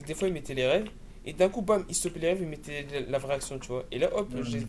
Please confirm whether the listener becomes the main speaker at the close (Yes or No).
No